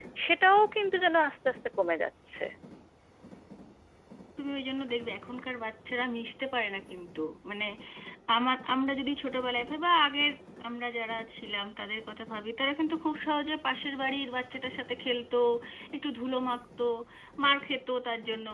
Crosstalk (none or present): none